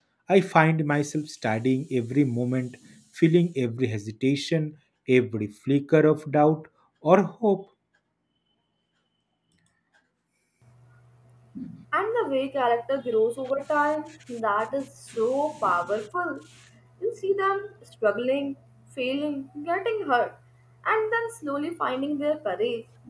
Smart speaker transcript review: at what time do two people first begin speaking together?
none

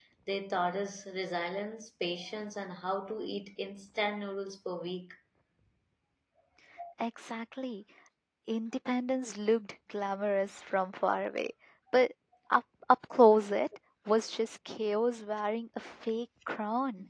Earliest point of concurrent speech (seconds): none

